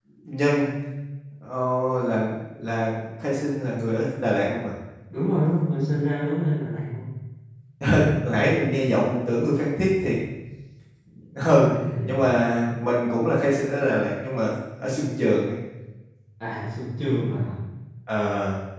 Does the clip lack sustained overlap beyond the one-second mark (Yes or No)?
Yes